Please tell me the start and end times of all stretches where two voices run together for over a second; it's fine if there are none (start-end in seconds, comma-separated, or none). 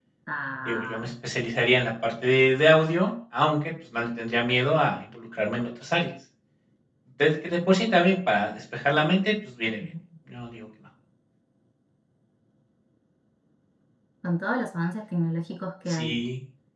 none